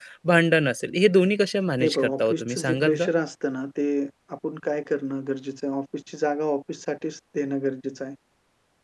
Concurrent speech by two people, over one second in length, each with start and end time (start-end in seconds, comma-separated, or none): 1.8-3.1